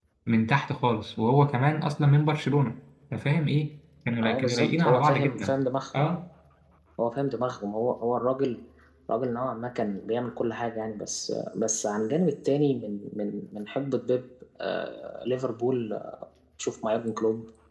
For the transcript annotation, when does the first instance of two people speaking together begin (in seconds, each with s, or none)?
4.2 s